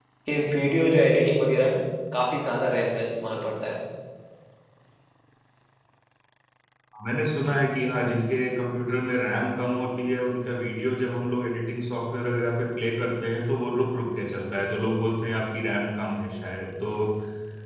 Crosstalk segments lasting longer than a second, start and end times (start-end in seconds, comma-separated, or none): none